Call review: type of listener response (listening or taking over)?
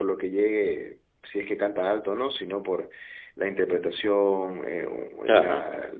listening